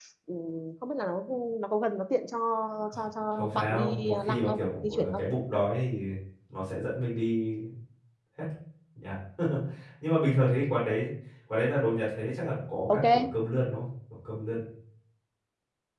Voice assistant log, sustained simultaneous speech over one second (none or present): present